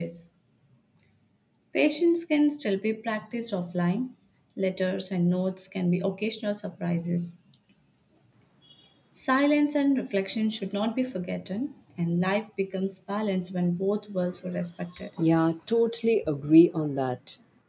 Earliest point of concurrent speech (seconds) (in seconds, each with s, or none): none